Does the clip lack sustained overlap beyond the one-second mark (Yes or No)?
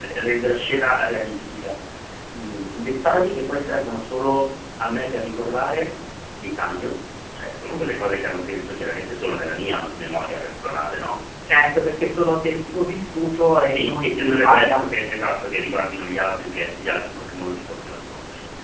No